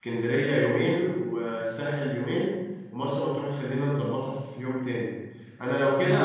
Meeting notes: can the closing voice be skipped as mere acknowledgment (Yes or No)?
Yes